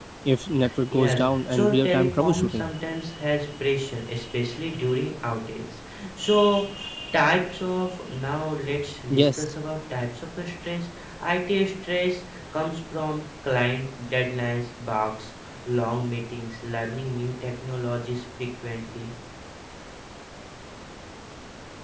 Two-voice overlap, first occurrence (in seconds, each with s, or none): 0.9 s